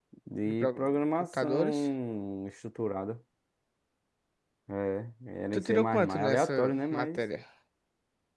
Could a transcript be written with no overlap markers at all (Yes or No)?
No